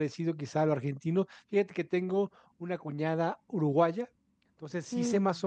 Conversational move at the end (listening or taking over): listening